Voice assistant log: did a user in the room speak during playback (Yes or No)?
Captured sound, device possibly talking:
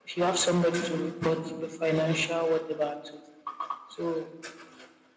No